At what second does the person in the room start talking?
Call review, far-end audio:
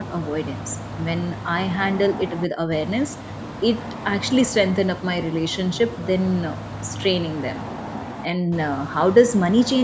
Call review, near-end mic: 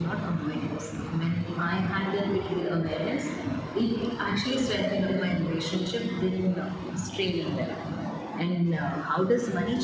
none

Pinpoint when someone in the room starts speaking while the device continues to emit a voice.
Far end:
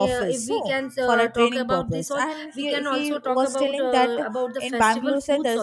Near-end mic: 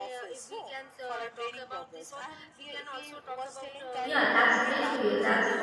4.0 s

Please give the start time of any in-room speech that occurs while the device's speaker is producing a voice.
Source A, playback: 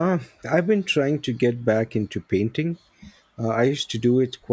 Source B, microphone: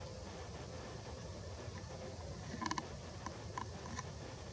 none

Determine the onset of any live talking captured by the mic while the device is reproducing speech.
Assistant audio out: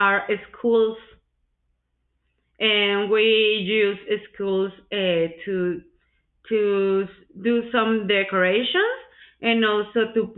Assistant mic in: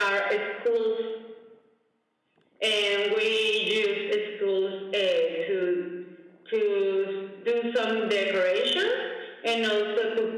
none

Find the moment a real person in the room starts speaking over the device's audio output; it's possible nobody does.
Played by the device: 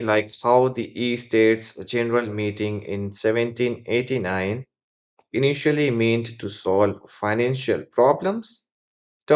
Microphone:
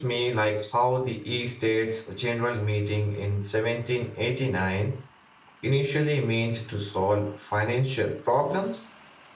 none

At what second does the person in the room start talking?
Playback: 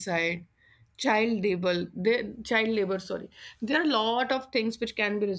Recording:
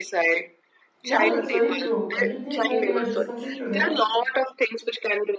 1.0 s

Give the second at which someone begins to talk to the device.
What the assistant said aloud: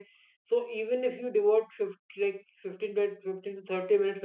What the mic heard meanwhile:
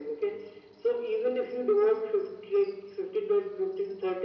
none

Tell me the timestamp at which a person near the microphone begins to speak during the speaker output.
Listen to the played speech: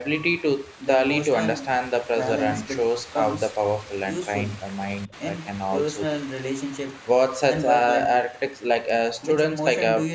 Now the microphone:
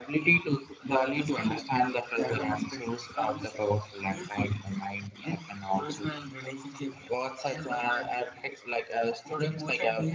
none

